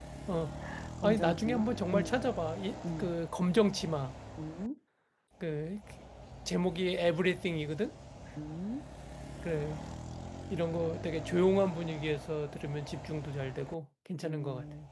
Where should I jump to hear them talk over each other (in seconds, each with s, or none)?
1.0 s